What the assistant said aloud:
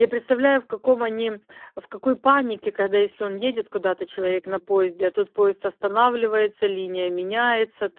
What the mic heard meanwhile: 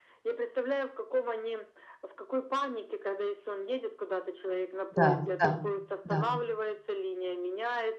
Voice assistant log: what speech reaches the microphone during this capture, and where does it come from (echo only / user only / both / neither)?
both